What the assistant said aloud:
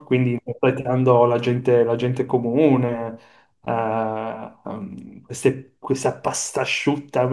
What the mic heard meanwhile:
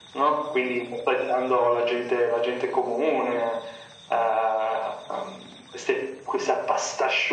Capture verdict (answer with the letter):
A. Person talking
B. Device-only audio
B